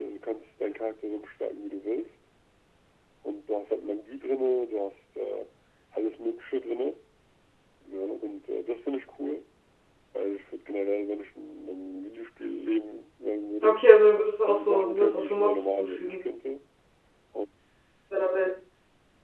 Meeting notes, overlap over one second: present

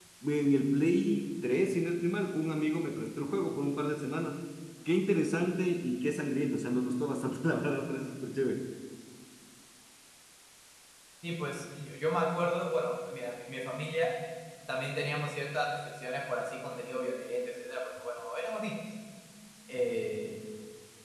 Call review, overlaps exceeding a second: none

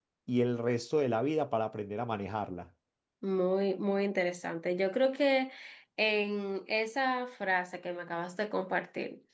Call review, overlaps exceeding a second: none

